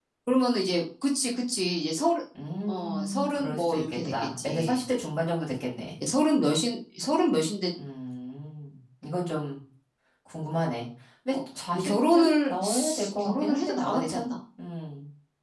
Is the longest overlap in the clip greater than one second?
Yes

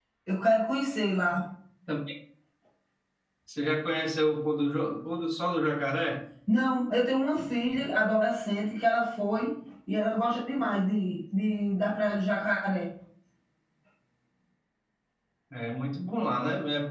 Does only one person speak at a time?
Yes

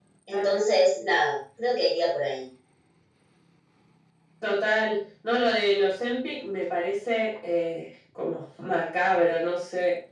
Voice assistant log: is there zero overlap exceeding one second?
Yes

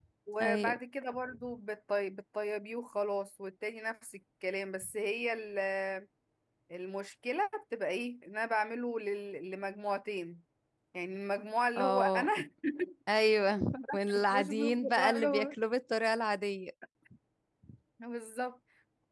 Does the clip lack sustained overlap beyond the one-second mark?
No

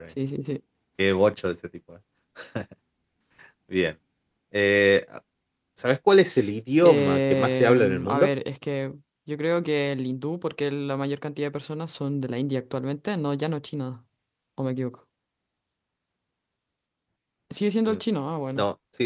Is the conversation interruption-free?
No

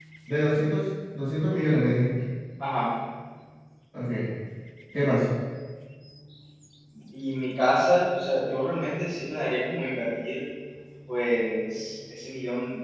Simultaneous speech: No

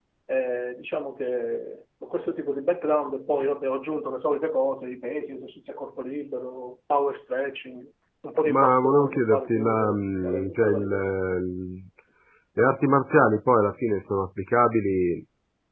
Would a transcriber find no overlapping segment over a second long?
No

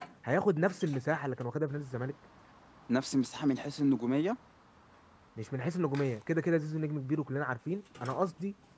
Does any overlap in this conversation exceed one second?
No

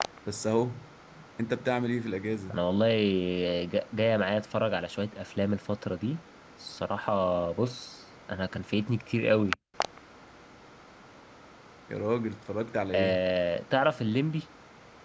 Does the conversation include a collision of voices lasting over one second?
No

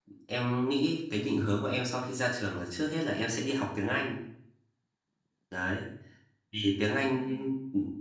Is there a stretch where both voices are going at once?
No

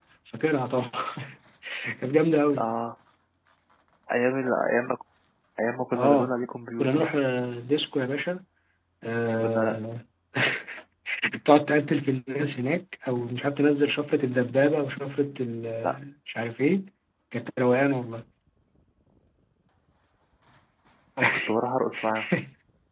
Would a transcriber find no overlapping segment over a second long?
Yes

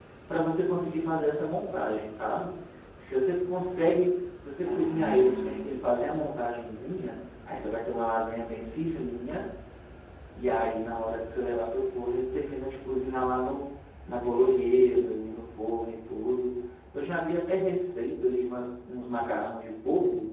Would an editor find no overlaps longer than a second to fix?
No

